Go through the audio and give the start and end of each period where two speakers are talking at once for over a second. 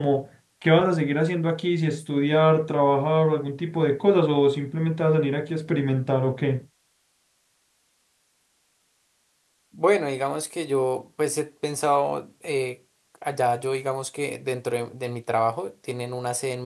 none

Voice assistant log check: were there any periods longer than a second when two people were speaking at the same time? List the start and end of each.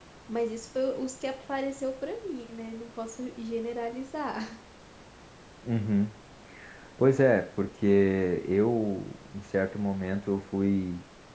none

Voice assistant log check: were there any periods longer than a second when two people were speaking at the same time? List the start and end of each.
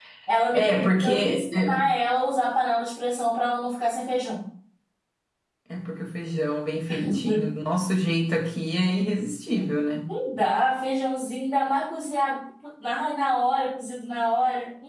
0.5-1.9

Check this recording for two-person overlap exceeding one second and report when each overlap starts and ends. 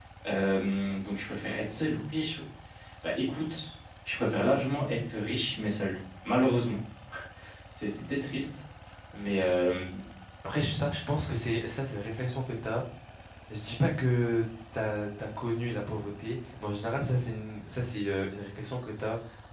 none

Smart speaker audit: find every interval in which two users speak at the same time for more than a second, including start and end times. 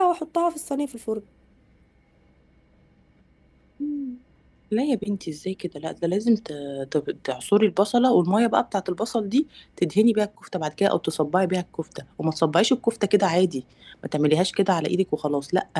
none

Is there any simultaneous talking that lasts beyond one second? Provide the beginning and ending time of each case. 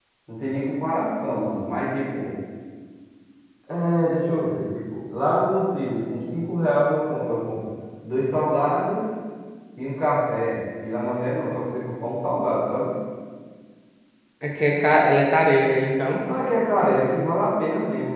none

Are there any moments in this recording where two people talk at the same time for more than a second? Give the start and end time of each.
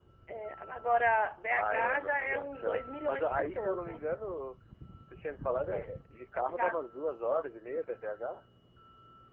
1.5-4.0

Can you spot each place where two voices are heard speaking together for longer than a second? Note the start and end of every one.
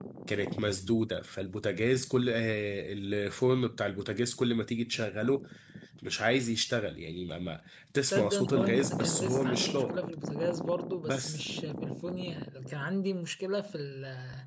8.1-10.0

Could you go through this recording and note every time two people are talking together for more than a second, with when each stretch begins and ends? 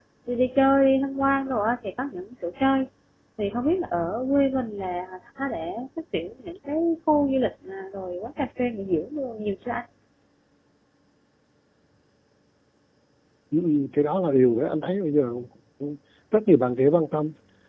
none

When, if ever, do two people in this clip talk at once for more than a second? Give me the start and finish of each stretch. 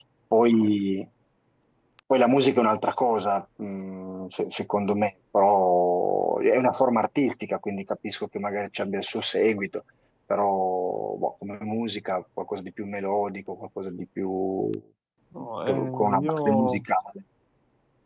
15.4-16.8

